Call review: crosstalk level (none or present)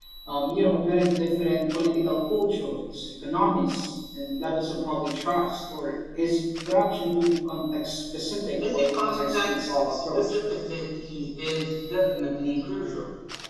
present